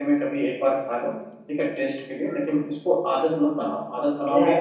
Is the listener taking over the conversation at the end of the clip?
Yes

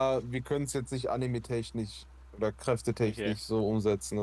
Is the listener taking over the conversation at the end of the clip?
No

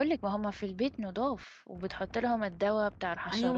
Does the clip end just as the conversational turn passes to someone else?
Yes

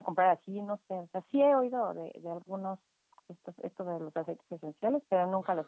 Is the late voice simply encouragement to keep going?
No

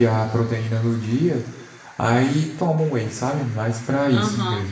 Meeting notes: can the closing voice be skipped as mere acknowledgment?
No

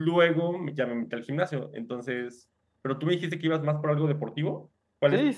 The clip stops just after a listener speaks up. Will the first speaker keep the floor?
No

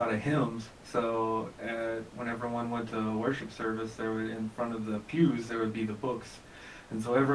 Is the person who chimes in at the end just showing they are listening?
Yes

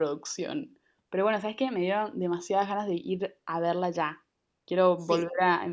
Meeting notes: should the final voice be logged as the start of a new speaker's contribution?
Yes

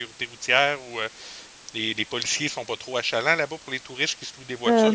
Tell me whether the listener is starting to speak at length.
Yes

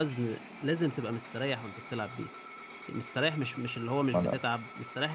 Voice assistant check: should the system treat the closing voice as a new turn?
No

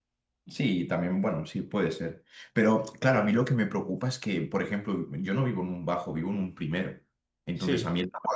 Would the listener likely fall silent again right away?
Yes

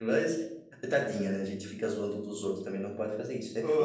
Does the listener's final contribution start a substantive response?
Yes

